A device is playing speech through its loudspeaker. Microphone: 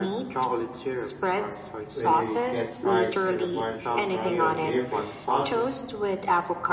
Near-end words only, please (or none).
where you get fries and a bunch of random dipping sauces.